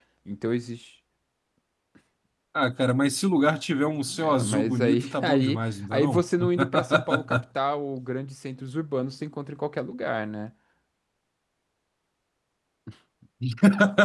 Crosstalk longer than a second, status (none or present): present